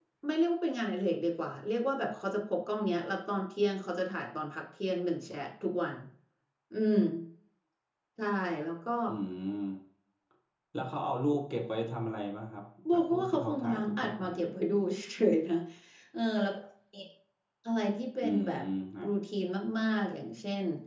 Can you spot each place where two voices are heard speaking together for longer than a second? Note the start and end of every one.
12.9-14.3

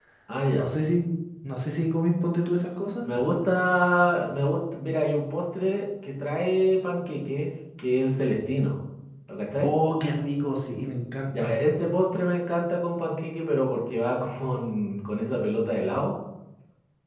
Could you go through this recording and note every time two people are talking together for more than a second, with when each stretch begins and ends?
none

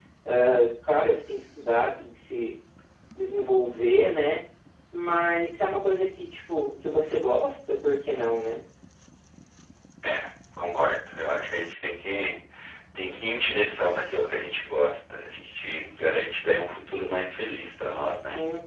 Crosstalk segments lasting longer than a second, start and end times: none

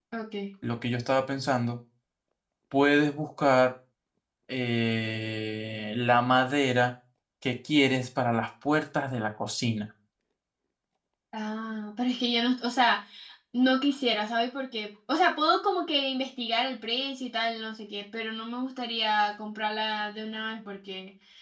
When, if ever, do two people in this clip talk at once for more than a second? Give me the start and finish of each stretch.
none

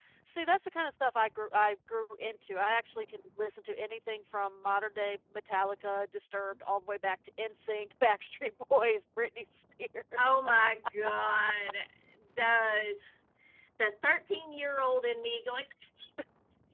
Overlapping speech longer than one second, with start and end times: none

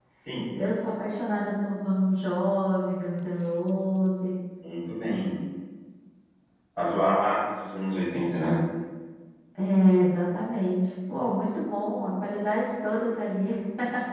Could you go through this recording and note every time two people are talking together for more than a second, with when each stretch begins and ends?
none

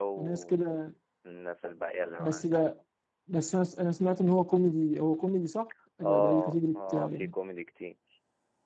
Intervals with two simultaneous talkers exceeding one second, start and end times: 6.0-7.3

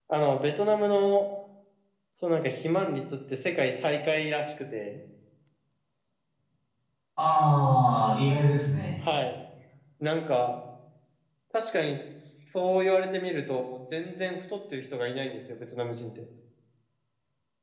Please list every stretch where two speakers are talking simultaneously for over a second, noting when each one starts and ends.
none

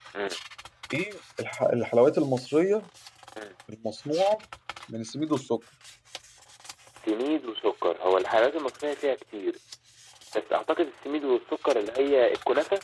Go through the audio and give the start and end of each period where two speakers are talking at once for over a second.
none

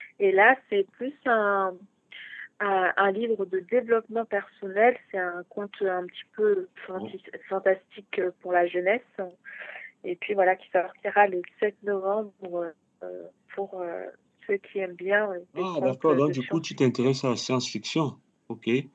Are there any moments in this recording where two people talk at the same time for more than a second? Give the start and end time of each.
15.6-17.1

